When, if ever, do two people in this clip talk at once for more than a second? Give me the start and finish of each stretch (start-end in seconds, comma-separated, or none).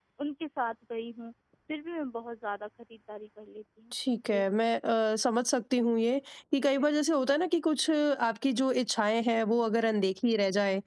none